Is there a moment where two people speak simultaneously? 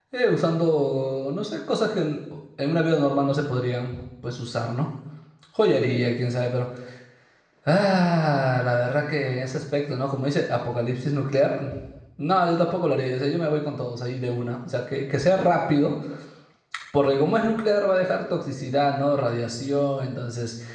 No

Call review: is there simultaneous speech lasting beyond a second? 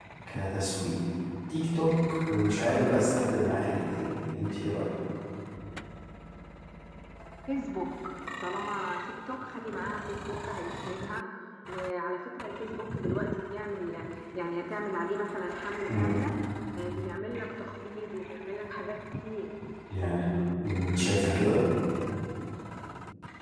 No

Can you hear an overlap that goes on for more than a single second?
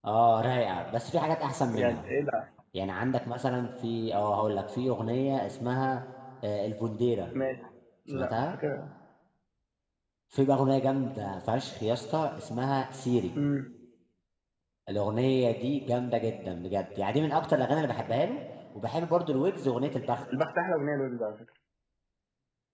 No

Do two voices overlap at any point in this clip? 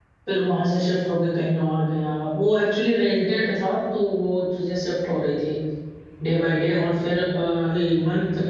No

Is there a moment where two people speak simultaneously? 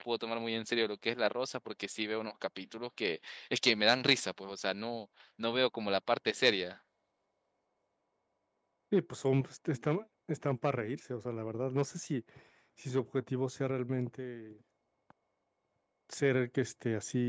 No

